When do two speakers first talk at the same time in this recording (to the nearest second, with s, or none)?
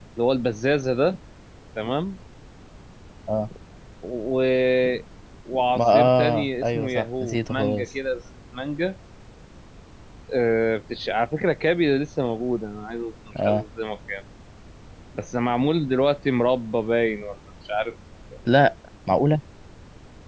6 s